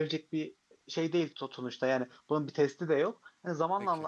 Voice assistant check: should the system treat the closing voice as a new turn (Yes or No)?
No